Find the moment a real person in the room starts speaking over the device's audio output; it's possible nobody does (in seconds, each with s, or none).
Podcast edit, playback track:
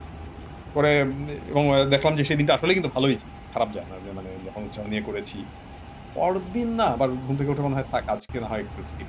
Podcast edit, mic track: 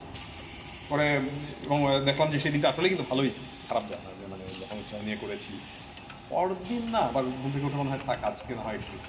none